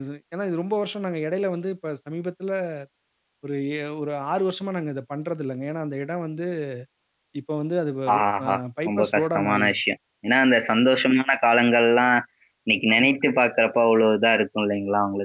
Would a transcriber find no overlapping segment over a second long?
No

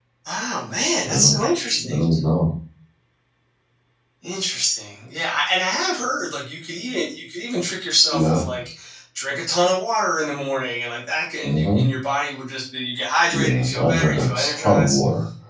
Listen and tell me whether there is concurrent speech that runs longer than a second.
Yes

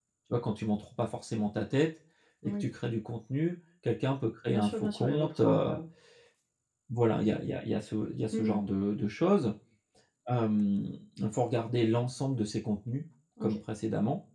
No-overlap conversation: No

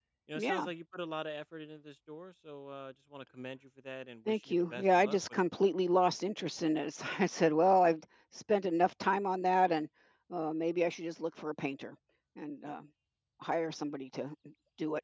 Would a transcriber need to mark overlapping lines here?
Yes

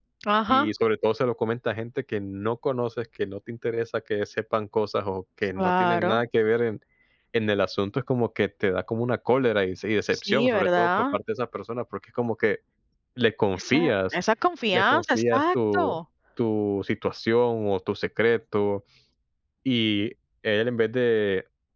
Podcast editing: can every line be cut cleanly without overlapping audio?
No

